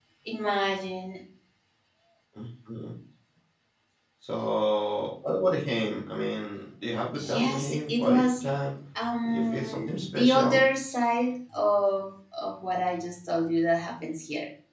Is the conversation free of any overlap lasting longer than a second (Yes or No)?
No